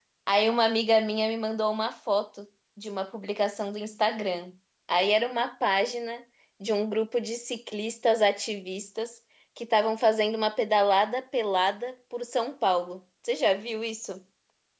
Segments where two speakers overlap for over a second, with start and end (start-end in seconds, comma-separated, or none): none